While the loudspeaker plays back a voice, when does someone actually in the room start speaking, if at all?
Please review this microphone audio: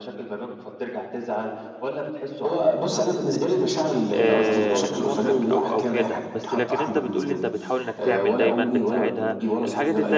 4.1 s

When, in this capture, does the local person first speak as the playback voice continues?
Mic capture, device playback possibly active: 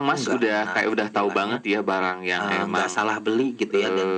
none

